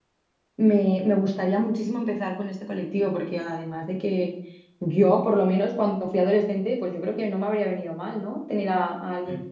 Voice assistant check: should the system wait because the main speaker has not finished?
Yes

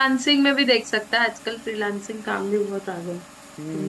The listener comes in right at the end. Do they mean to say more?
Yes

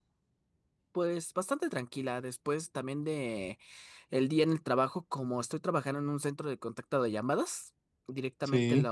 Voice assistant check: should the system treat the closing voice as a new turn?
No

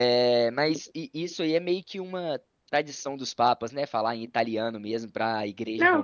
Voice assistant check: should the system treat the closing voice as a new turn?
Yes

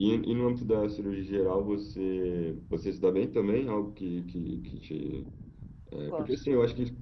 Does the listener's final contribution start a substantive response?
No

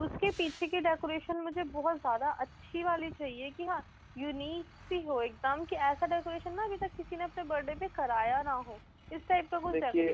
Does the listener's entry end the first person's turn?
Yes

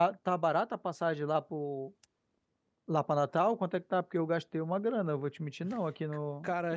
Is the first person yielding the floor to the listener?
Yes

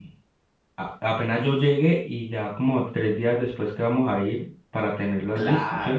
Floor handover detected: Yes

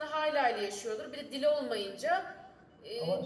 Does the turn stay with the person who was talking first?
Yes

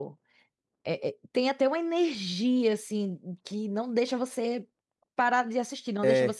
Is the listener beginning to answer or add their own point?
No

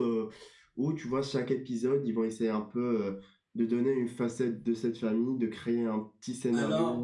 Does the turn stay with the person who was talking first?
No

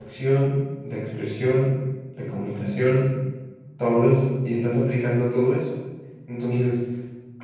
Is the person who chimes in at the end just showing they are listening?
Yes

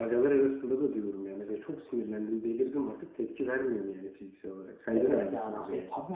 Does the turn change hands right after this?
Yes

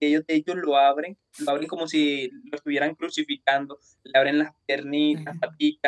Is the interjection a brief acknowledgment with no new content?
Yes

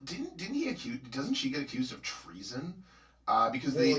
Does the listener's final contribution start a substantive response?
No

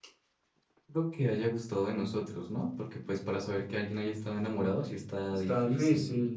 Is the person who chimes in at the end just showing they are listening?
No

